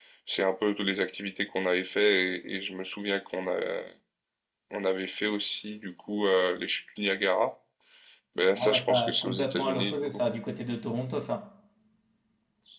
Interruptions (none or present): present